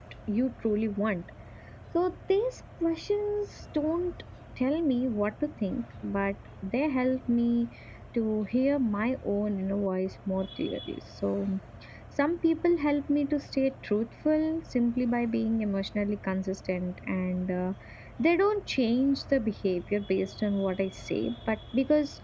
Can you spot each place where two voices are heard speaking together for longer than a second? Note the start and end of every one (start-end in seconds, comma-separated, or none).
none